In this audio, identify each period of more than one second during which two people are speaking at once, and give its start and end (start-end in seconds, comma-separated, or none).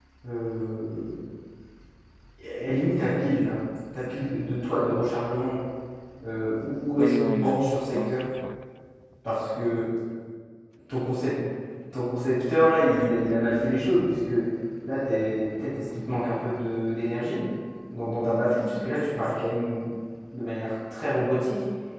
7.0-8.2